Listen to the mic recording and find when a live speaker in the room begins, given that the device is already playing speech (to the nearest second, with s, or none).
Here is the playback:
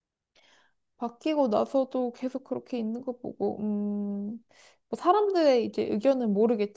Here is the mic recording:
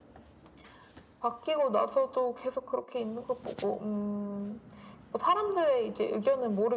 none